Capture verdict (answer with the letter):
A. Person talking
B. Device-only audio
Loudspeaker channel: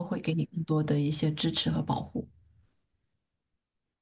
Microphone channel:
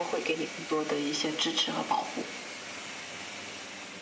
B